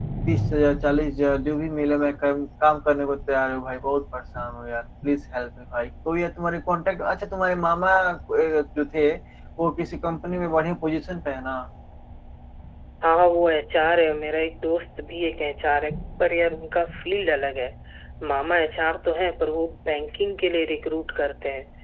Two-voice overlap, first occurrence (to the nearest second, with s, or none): none